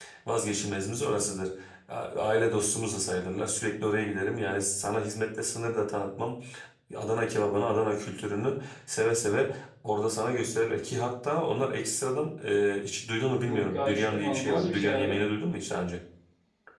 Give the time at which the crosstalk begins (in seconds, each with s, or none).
13.4 s